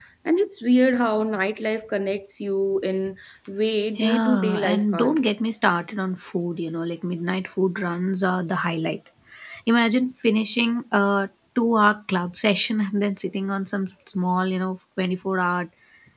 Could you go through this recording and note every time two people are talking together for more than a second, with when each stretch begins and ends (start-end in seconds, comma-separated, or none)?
4.0-5.2